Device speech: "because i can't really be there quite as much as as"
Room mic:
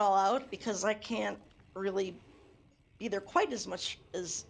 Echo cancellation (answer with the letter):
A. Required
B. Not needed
A